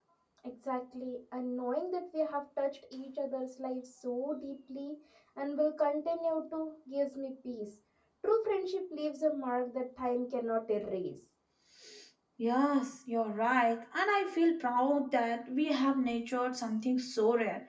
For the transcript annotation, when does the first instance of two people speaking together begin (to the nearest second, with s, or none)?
none